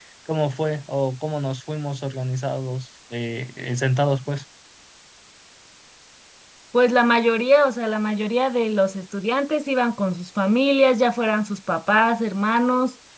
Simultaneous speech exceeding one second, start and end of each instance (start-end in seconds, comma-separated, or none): none